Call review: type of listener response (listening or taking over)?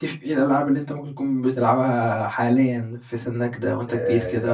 taking over